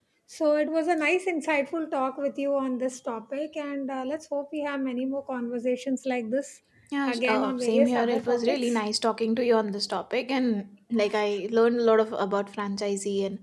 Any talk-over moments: Yes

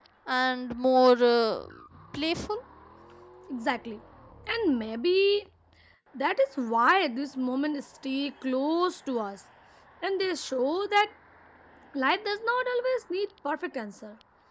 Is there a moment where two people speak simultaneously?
No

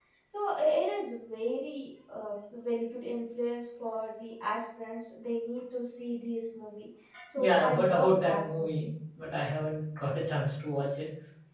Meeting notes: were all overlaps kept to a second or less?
No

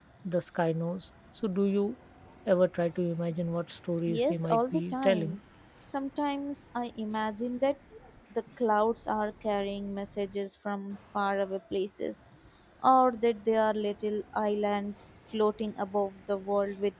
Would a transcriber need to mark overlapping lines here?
Yes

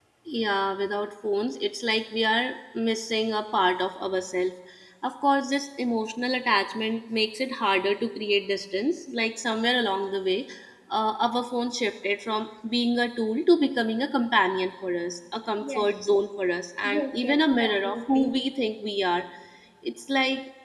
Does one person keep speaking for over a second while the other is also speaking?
Yes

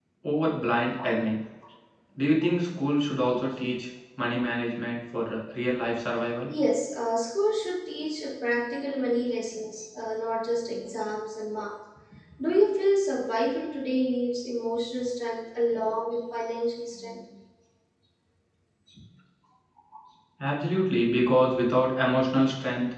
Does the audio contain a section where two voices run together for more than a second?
No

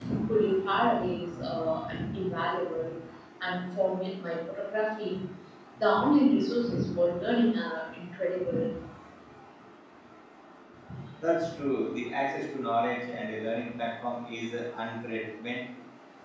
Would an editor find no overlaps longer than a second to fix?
Yes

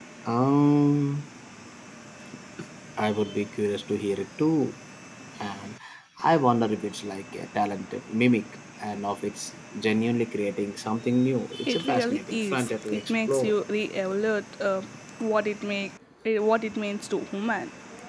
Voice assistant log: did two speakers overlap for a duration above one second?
Yes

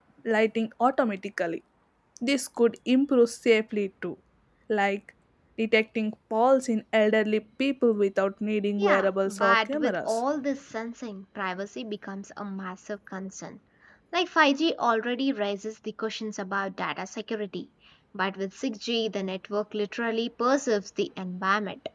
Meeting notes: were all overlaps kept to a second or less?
No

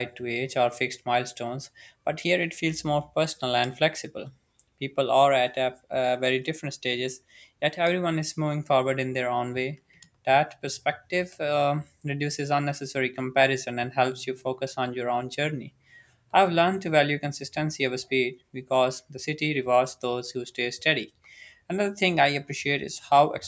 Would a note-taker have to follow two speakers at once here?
No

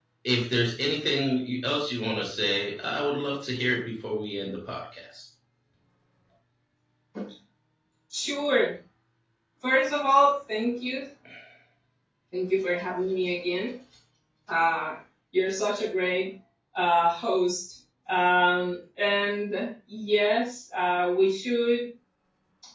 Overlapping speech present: No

